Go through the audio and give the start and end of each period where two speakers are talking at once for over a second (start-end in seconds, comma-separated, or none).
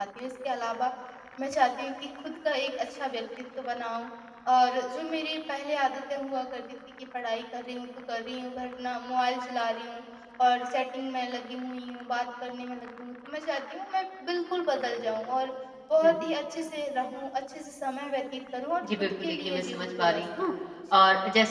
19.0-20.2